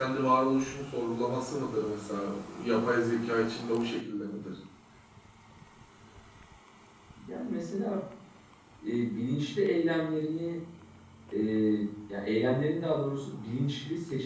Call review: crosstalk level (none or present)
none